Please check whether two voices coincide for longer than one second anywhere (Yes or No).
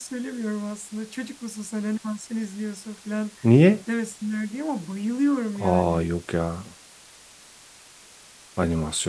No